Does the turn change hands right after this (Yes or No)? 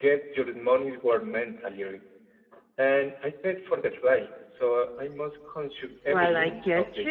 Yes